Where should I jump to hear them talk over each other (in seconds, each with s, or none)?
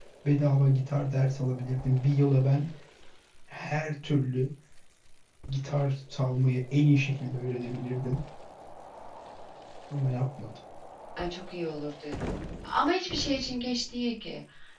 none